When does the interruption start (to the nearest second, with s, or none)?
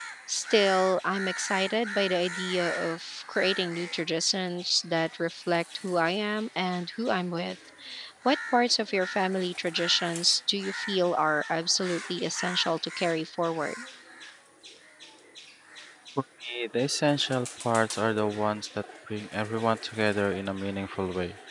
none